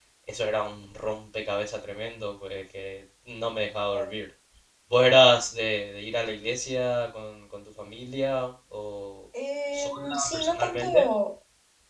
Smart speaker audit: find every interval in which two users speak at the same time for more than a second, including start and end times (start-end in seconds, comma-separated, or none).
9.7-11.1